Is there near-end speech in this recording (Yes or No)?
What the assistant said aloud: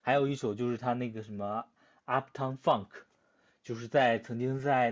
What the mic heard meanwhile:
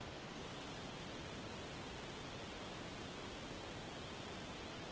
No